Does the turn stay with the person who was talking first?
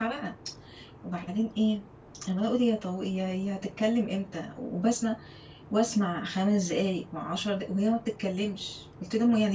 Yes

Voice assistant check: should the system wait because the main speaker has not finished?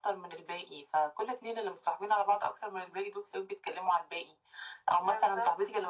Yes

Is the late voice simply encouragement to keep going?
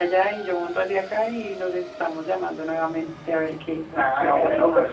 No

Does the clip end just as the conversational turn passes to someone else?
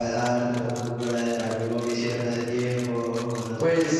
Yes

